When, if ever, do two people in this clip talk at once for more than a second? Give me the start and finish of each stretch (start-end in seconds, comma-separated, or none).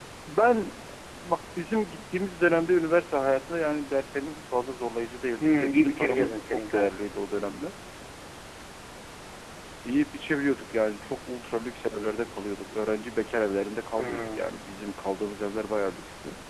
5.4-6.9